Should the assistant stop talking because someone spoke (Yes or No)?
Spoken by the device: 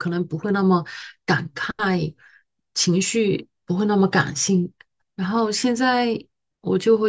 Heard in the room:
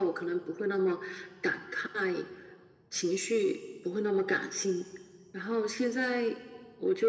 No